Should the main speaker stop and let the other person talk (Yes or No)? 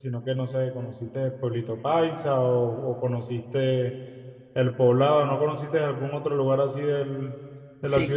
Yes